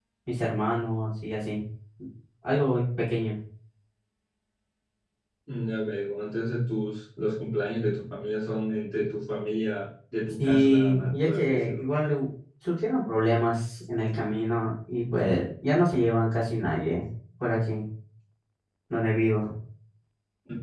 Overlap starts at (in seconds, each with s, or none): 10.4 s